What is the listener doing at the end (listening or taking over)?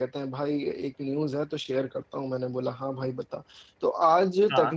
listening